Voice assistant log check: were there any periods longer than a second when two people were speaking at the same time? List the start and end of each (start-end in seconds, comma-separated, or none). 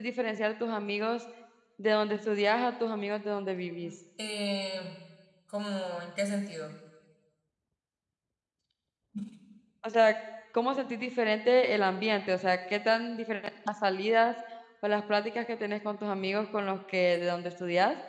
none